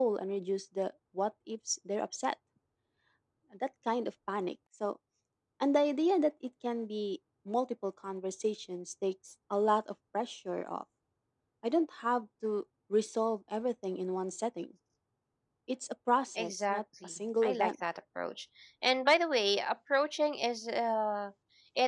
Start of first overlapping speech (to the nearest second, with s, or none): 16 s